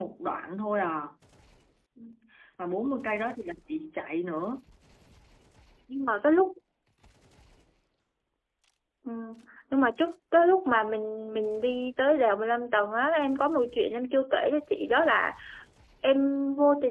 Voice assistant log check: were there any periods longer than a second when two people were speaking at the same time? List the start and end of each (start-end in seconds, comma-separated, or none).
none